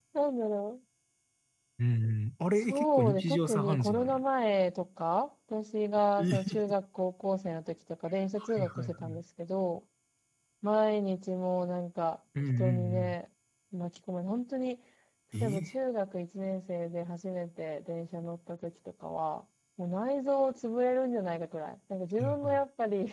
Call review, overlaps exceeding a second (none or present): present